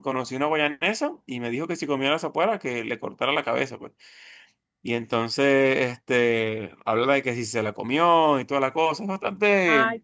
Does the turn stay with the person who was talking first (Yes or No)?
No